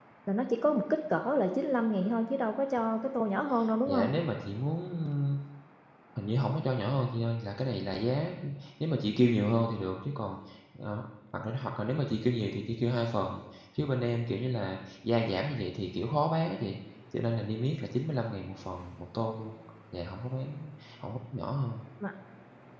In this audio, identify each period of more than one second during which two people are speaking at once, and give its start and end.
none

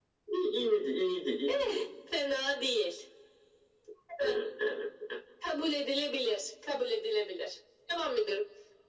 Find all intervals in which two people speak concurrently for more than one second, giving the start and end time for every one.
none

